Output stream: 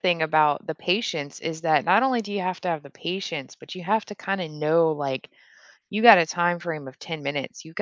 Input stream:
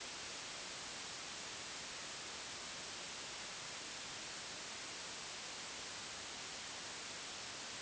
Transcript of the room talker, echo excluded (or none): none